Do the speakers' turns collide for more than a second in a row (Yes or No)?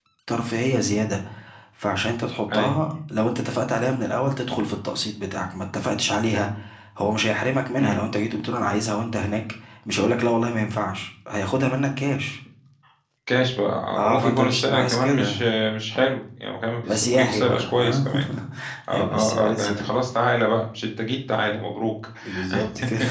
Yes